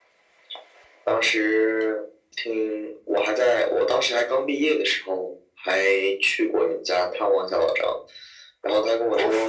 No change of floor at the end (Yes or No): Yes